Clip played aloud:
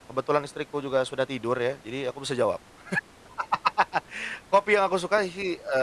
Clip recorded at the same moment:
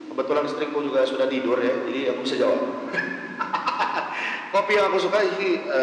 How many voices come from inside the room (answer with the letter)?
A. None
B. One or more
A